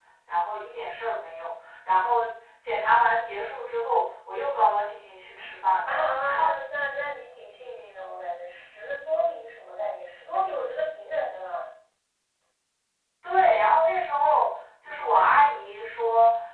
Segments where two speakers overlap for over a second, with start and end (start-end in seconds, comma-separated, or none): none